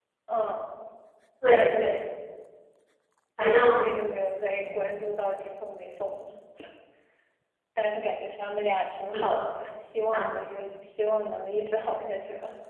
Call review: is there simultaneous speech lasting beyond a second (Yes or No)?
No